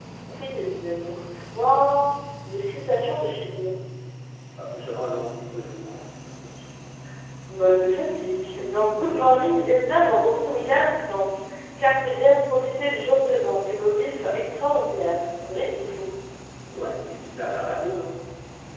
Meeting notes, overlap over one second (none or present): none